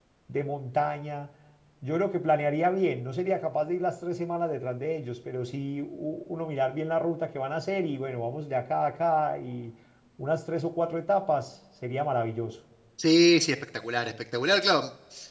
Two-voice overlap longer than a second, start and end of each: none

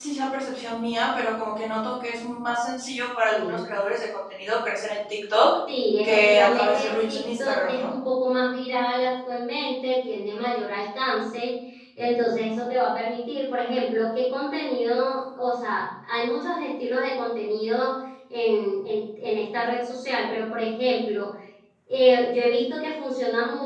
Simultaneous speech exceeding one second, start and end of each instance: 6.0-7.9

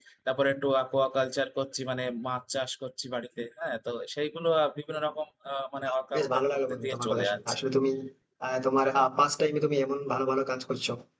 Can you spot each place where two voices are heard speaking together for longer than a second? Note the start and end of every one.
6.2-7.6

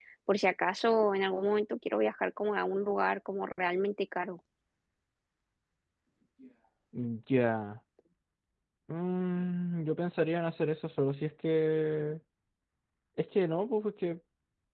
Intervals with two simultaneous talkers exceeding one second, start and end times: none

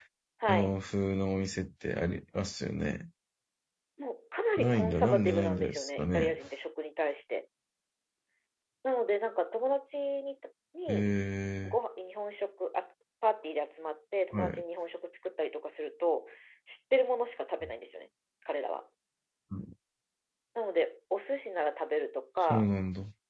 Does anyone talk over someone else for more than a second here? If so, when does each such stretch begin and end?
4.6-6.3

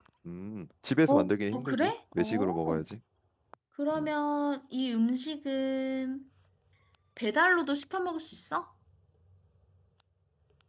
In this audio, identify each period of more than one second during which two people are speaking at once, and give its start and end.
1.5-2.8

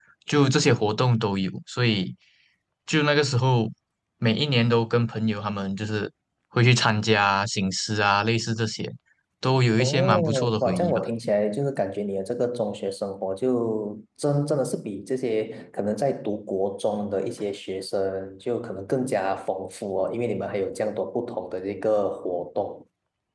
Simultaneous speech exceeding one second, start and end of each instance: 9.8-11.0

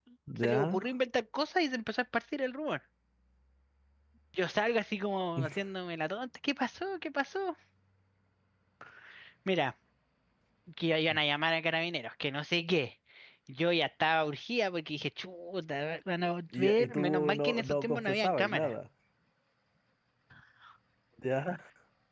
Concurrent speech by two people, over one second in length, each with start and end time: 16.6-18.7

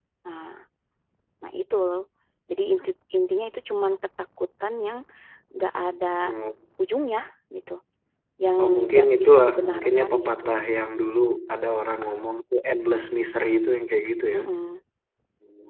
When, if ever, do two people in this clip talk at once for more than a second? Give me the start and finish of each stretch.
8.6-10.4

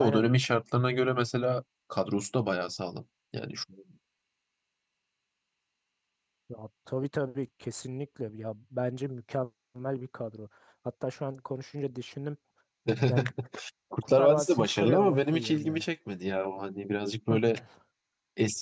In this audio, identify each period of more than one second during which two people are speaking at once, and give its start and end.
14.1-15.8

